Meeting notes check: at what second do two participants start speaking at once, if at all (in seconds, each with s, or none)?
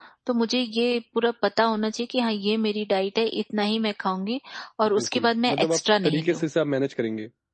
4.9 s